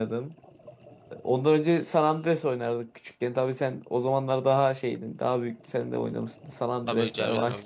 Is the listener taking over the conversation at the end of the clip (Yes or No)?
Yes